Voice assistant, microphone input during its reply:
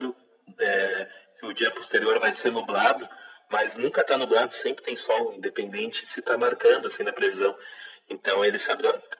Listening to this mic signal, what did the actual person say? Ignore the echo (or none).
none